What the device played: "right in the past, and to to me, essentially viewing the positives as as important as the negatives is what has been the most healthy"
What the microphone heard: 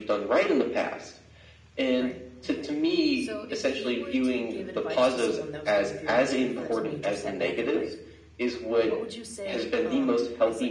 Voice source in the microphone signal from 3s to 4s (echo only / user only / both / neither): both